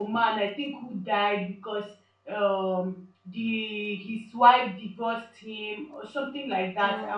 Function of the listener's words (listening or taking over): listening